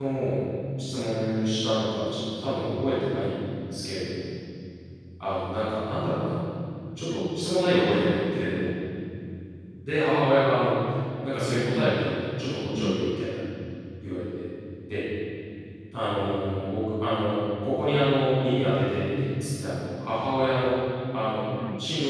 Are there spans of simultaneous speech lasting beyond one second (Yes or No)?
No